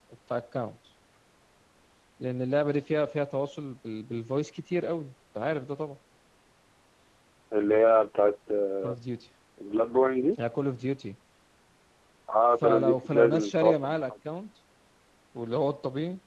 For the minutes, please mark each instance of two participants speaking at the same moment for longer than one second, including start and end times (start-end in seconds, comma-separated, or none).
12.6-14.1